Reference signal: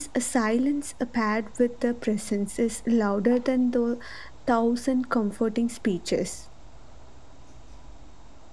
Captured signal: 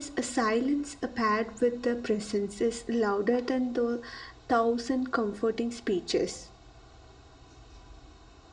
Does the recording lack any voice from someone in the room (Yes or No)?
Yes